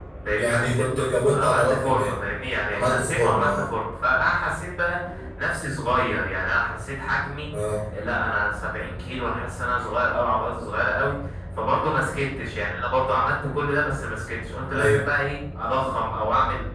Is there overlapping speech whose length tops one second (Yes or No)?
Yes